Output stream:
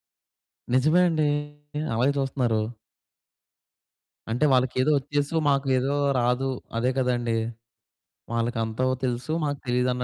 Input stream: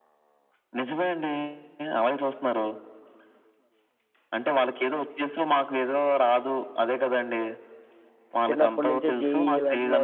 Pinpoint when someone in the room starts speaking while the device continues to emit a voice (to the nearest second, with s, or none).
8 s